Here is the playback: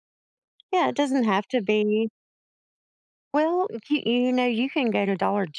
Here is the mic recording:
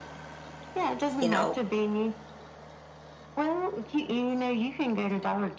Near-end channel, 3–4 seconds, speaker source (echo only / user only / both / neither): echo only